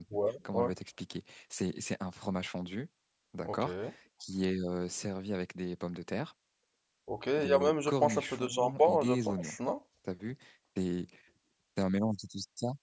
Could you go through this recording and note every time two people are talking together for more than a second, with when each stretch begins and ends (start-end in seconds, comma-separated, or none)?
7.4-9.6